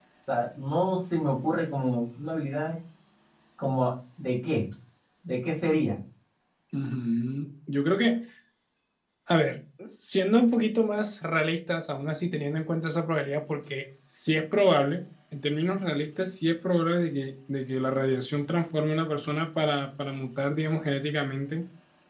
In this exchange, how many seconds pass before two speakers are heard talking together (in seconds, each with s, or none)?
none